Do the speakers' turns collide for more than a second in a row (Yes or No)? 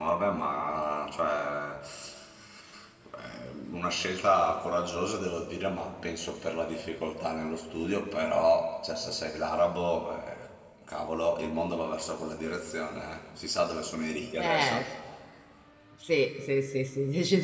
No